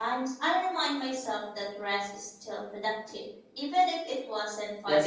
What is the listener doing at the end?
taking over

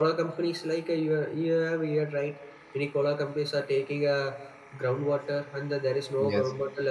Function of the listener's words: listening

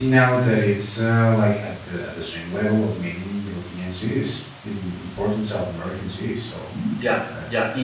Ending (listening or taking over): taking over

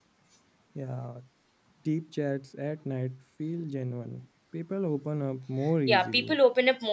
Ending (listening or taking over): taking over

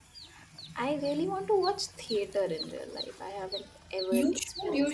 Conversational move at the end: taking over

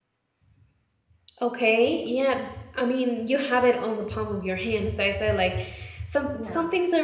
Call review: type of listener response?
listening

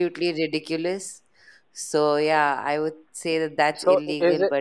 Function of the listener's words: taking over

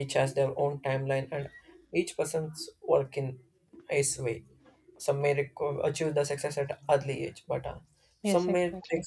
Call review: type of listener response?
taking over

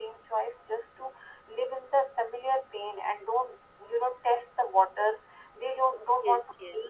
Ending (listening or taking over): listening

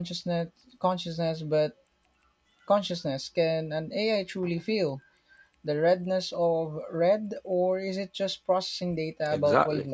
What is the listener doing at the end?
taking over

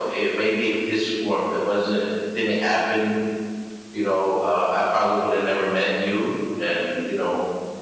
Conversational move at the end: listening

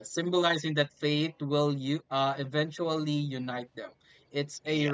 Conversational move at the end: listening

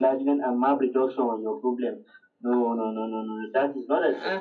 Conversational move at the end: taking over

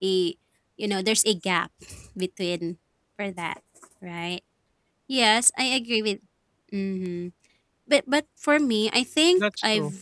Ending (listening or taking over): listening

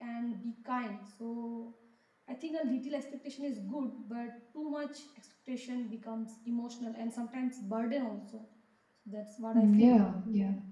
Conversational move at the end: taking over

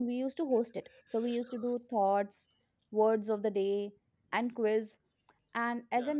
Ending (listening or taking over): listening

